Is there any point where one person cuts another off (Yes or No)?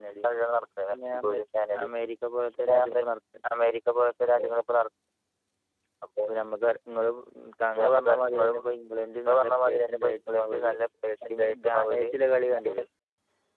Yes